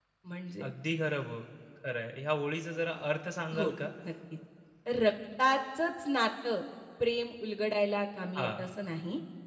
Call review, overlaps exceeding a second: none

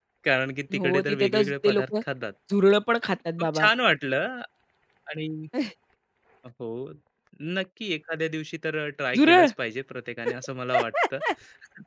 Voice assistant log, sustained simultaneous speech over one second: present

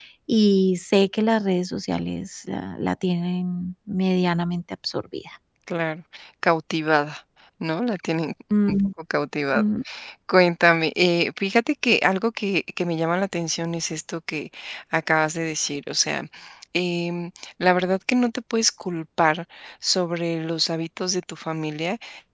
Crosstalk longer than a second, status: none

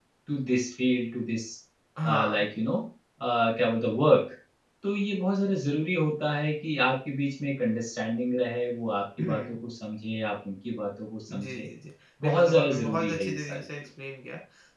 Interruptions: present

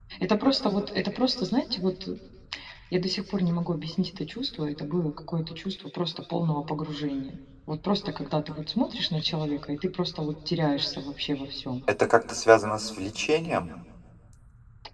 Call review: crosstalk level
none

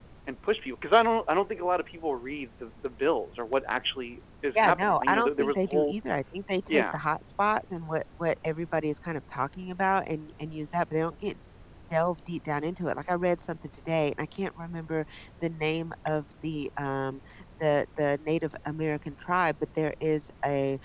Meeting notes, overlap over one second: present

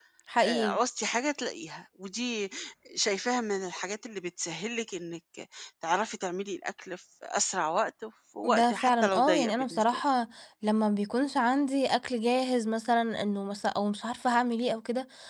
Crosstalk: present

